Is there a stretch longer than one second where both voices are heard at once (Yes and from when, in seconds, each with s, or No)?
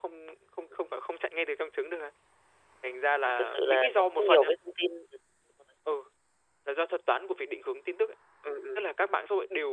Yes, from 3.3 s